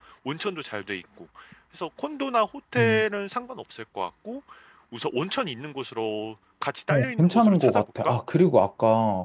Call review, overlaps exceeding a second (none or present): present